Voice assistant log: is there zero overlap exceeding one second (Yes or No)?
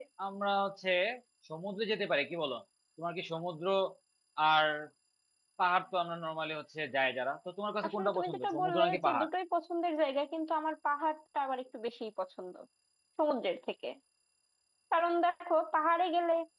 No